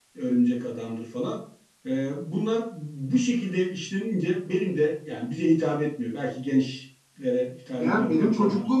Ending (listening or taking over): taking over